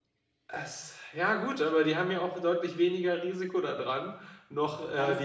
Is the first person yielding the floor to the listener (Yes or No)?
Yes